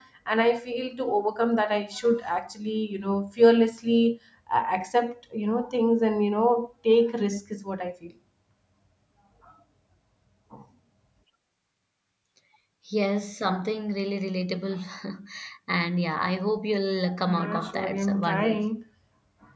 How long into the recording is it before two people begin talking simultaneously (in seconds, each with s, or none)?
17.1 s